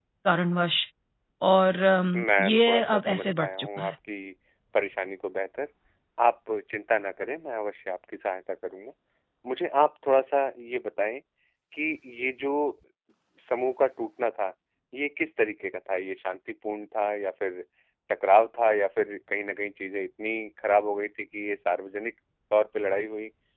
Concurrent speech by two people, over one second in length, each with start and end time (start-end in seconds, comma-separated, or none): 2.1-3.9